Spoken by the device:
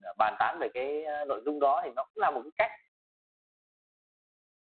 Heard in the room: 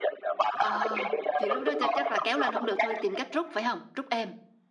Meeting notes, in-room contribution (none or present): present